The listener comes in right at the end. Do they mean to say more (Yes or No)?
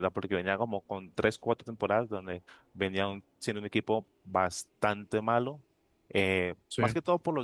No